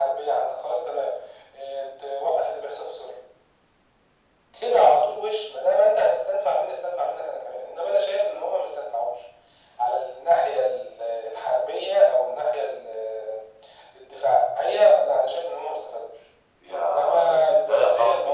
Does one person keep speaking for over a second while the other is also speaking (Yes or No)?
Yes